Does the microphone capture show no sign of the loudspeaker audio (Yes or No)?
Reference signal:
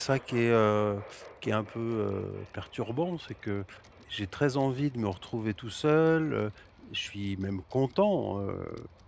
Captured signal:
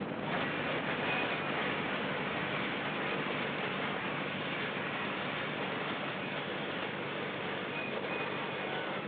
Yes